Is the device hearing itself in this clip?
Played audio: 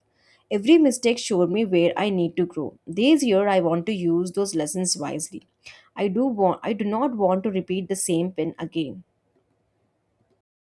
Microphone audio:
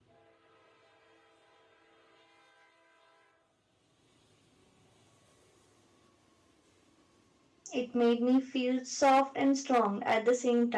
No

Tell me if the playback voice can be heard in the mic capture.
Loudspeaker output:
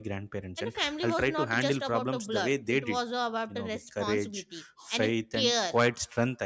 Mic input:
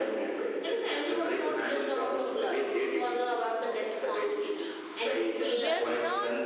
Yes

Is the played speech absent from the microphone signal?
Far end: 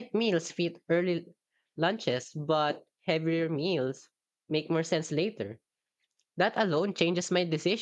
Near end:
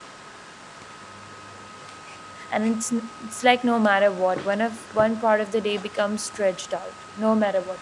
Yes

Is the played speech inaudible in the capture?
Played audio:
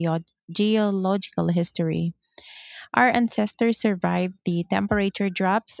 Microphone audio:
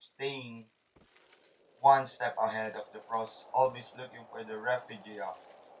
Yes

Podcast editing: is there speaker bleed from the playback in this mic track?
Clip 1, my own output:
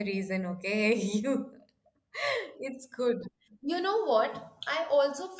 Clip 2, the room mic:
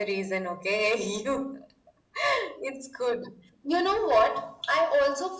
Yes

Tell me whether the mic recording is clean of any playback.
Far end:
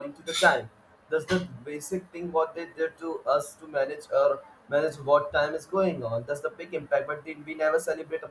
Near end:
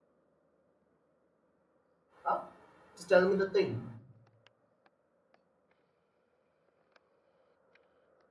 Yes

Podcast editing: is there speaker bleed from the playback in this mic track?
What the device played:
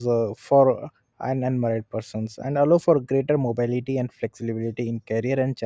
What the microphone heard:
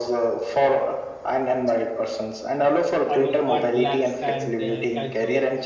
Yes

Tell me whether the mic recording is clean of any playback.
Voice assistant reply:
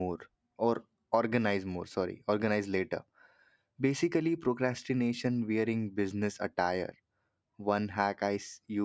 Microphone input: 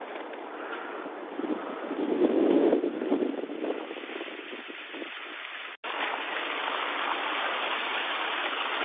Yes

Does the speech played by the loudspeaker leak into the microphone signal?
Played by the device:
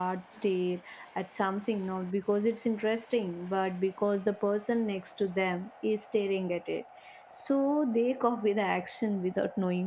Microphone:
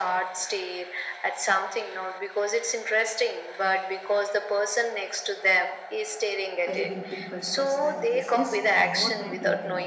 Yes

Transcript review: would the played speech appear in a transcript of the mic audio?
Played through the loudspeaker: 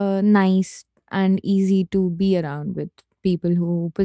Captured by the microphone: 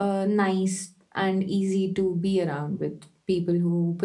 Yes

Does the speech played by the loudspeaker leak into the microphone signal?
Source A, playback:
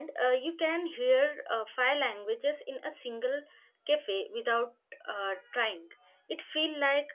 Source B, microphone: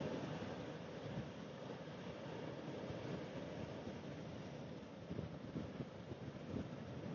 No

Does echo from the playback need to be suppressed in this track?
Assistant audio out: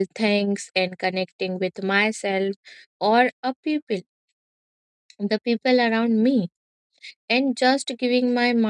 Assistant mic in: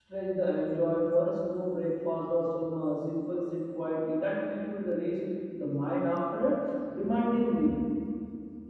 No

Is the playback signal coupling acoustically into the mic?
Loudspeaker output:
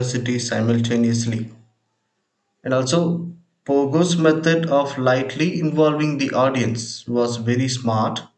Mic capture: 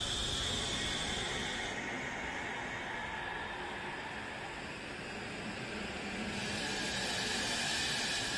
No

